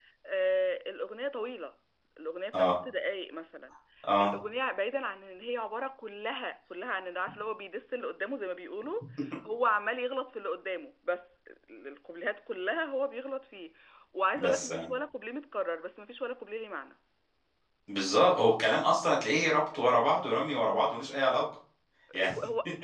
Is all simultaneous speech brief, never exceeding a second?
Yes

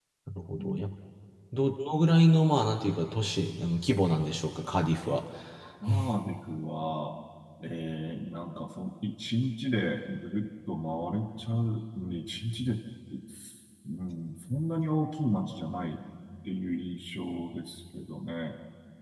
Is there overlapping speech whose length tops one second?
No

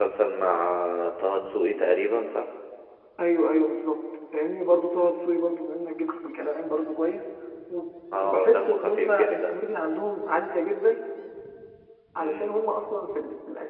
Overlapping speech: Yes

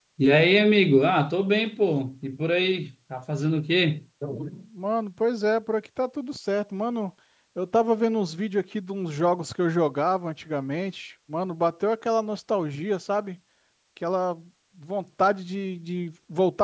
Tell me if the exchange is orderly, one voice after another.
Yes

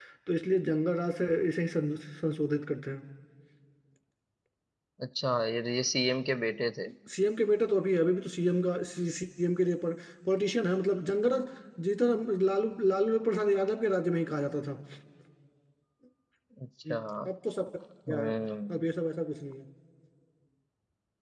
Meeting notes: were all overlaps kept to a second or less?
Yes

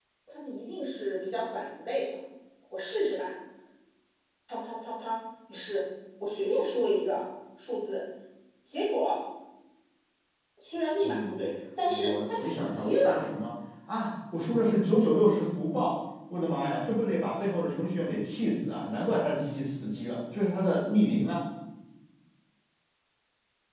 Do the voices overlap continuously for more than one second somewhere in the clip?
Yes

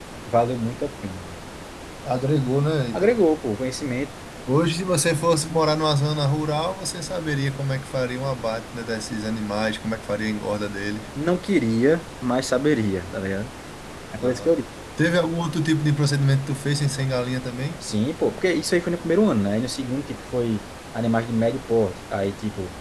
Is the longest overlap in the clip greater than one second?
No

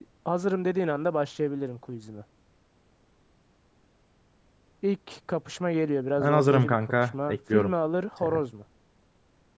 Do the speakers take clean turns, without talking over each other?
No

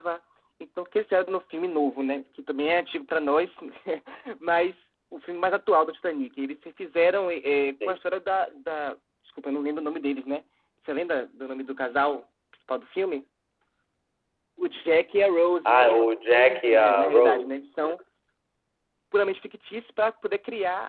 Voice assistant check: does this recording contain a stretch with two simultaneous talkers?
Yes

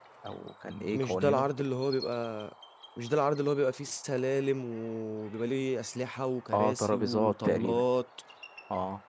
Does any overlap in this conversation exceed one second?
Yes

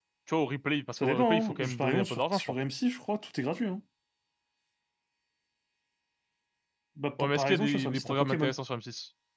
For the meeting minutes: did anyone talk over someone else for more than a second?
Yes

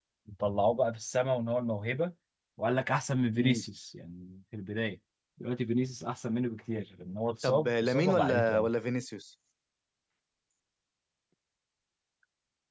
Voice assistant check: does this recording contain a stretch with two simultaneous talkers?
Yes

